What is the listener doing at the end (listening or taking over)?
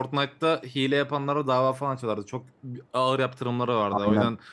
listening